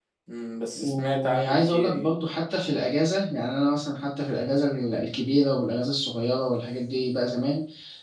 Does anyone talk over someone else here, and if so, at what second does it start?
0.7 s

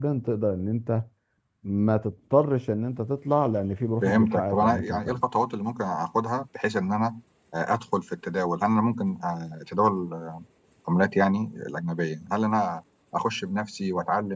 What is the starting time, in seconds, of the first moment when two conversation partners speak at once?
4.0 s

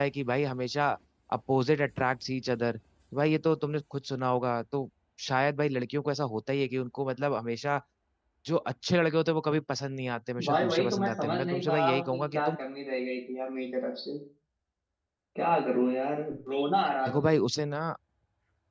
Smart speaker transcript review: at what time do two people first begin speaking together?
10.4 s

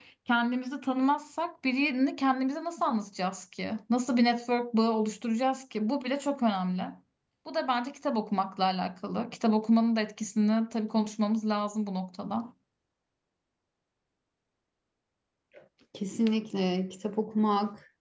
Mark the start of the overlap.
none

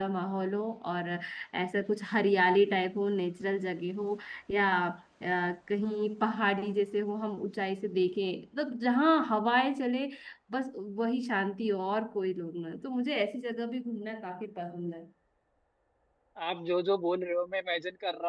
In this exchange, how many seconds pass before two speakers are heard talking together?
none

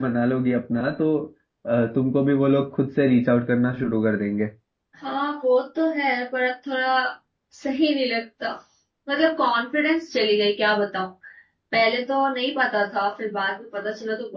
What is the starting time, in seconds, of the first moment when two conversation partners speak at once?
none

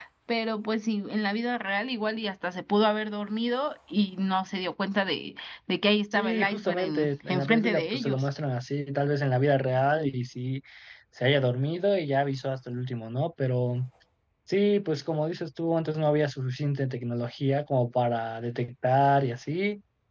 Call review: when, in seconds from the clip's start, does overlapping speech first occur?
6.1 s

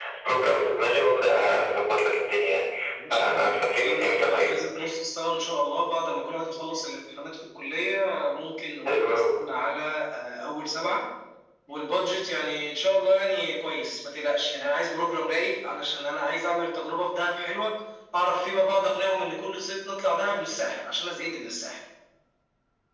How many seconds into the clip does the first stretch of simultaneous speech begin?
3.1 s

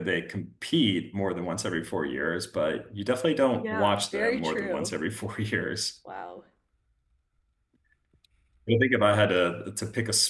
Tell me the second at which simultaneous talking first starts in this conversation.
3.6 s

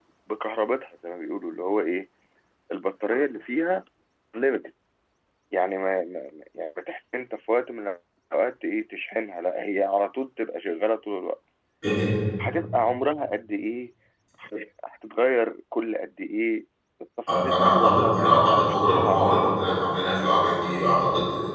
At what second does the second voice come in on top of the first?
17.4 s

